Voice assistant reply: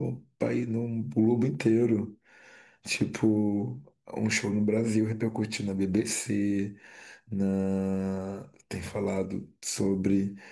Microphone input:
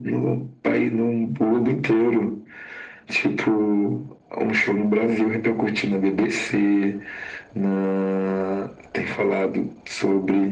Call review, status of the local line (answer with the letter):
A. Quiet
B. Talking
A